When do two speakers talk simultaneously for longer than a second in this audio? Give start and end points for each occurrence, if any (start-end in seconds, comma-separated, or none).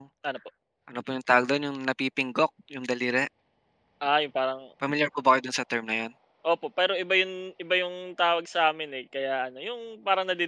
none